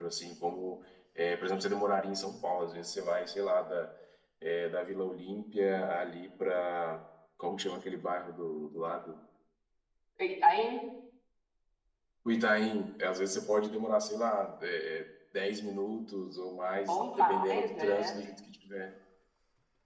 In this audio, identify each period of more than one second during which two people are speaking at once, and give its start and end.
16.9-18.2

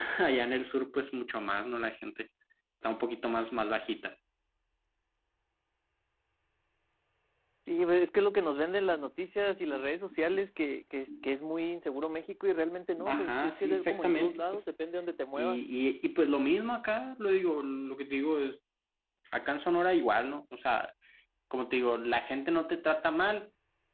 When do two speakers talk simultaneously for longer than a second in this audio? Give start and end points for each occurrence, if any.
13.0-14.6

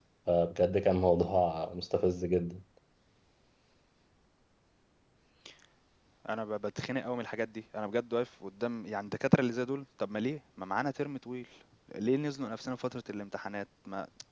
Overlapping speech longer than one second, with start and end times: none

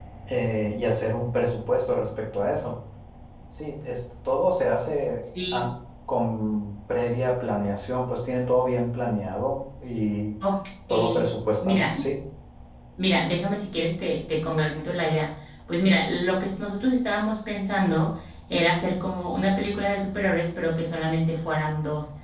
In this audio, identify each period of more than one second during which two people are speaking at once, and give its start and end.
none

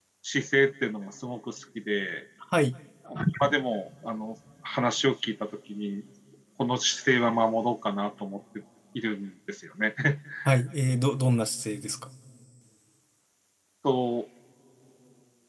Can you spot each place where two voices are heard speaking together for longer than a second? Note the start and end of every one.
none

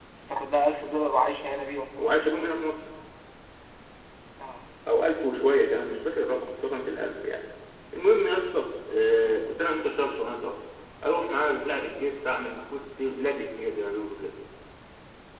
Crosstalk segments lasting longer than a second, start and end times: none

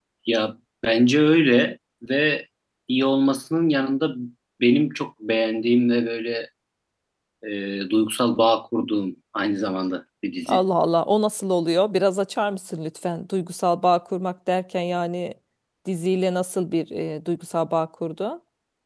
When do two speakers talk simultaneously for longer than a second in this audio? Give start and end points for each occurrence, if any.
none

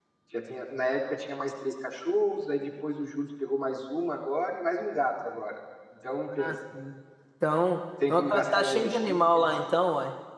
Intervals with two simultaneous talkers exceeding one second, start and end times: 8.1-9.5

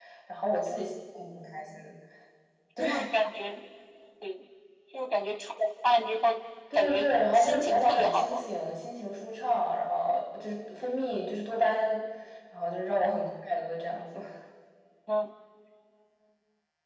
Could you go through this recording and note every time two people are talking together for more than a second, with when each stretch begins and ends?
6.7-8.4

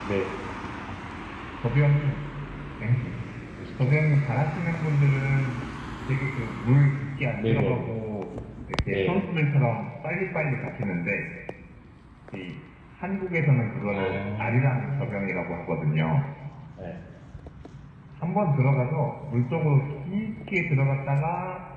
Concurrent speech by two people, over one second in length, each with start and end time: 13.9-15.1

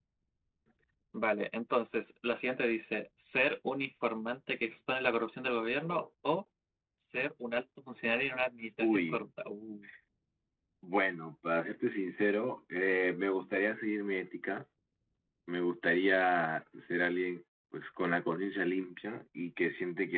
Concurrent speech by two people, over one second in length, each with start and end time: none

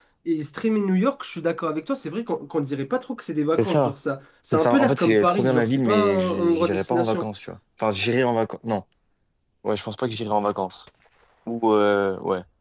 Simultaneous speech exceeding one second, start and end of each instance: 4.5-7.2

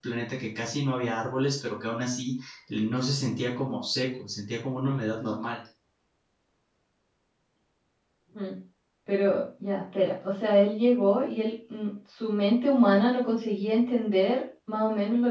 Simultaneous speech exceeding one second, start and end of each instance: none

